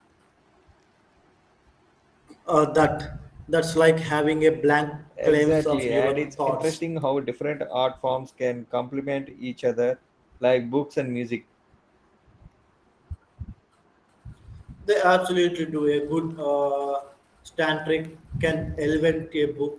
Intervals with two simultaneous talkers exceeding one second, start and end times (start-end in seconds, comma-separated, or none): 5.2-6.8